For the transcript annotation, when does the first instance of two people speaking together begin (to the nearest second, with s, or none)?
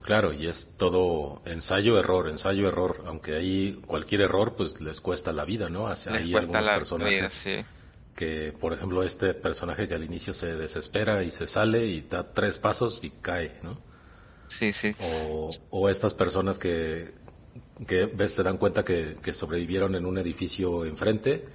6 s